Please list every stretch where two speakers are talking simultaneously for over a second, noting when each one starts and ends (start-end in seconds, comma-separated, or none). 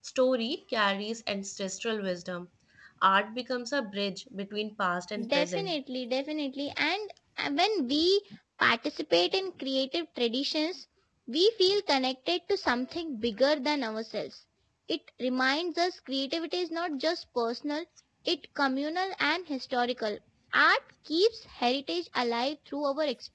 none